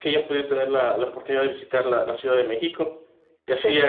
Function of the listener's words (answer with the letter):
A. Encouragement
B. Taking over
A